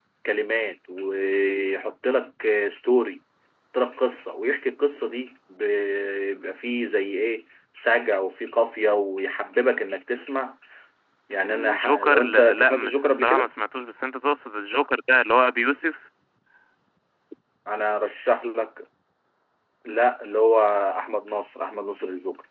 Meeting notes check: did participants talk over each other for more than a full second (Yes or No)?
Yes